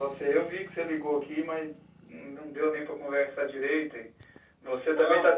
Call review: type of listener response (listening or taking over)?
listening